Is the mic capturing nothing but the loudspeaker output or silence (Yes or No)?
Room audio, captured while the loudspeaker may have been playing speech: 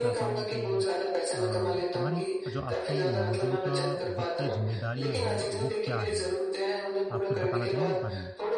No